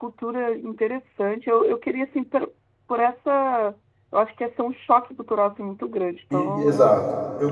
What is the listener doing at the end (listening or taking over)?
taking over